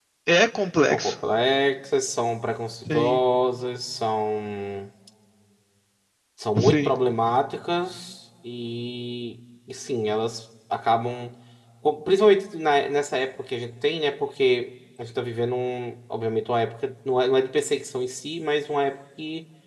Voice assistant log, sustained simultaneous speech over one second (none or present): none